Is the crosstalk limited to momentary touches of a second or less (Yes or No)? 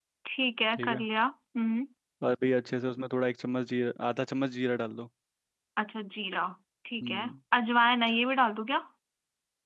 Yes